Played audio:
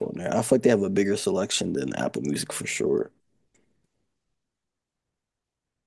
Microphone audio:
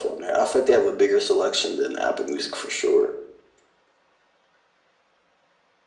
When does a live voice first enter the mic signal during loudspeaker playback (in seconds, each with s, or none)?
none